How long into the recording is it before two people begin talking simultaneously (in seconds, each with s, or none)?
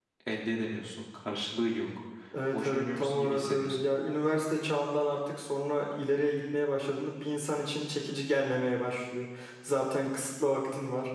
2.5 s